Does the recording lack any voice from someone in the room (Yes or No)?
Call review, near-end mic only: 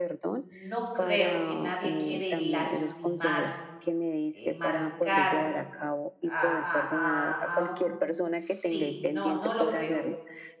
No